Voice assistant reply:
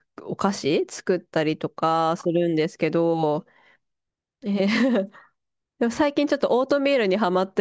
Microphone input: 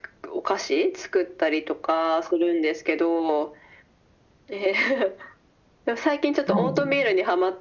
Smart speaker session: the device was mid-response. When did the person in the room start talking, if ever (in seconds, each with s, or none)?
6.4 s